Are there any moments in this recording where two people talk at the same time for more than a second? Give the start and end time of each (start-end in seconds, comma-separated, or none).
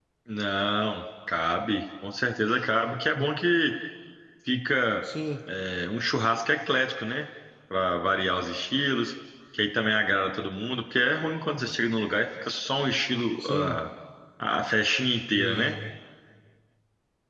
none